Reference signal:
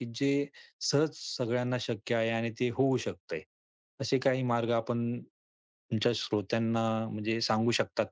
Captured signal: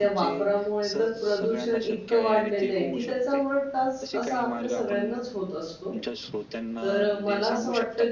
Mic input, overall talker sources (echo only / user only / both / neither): both